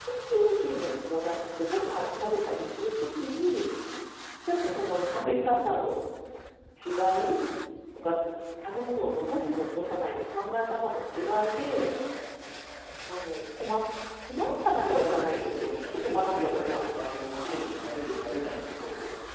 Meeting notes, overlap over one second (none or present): present